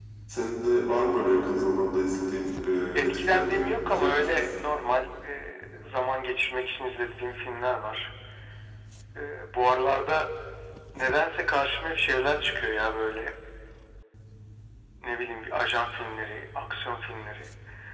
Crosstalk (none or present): present